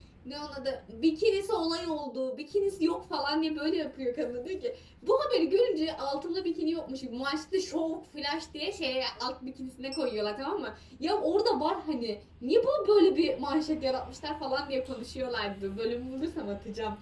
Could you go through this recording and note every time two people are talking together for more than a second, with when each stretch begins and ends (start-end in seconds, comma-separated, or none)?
none